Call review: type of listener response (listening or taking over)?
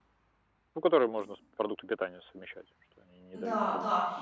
taking over